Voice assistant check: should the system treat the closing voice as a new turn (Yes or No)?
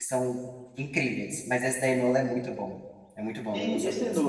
Yes